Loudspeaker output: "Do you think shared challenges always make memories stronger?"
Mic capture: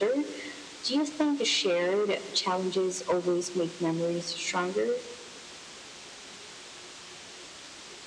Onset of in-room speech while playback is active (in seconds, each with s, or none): none